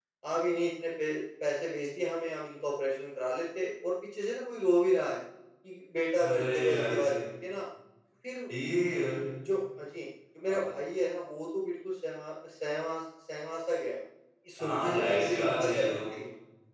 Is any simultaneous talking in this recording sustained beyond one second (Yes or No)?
Yes